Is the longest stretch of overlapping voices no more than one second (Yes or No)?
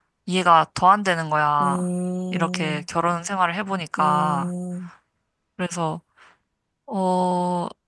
Yes